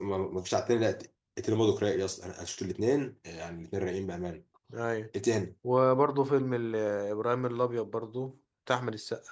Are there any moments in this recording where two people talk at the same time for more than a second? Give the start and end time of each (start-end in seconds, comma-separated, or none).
none